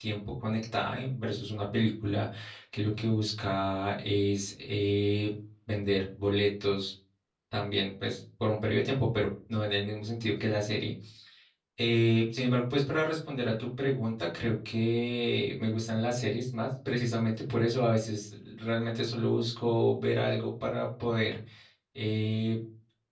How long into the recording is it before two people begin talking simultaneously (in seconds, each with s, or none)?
none